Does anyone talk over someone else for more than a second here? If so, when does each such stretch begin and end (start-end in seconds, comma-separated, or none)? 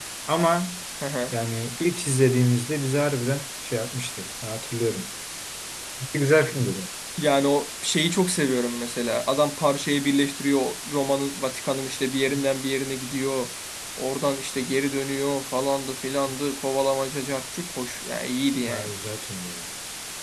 none